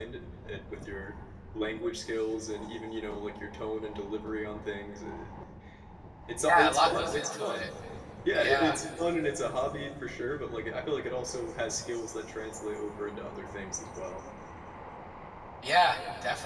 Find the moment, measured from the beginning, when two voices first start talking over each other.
6.4 s

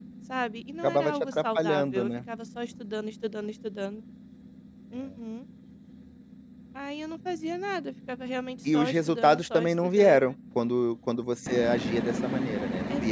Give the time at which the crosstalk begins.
0.8 s

